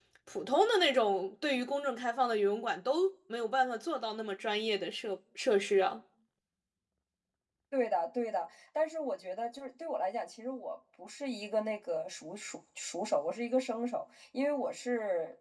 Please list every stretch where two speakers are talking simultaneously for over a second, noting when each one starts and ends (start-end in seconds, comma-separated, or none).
none